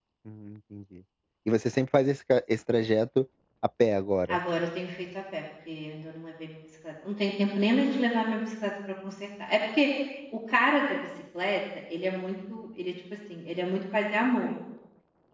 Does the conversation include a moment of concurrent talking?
No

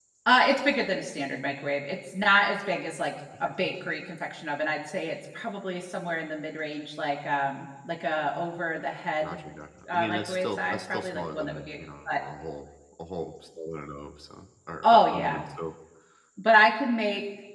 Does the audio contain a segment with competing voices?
Yes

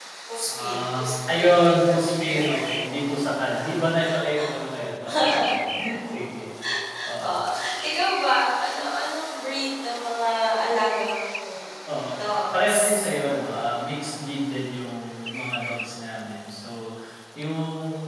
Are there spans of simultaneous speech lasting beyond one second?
Yes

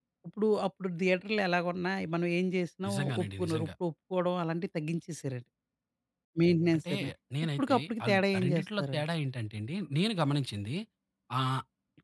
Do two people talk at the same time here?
Yes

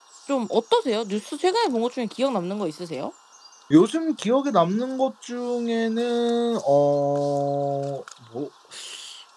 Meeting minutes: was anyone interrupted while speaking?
No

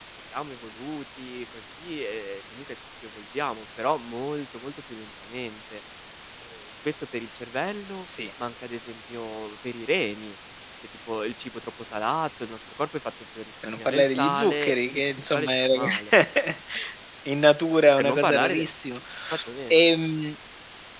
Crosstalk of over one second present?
Yes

